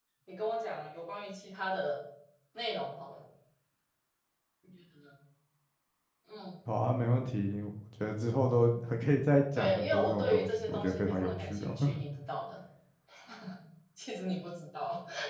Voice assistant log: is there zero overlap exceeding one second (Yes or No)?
No